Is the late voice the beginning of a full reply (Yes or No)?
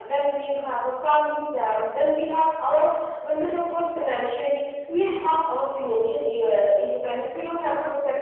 No